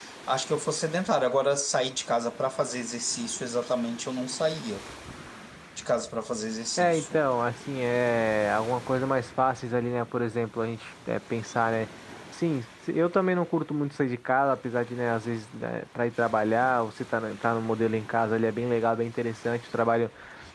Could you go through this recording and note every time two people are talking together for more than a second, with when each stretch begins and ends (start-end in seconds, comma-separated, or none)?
none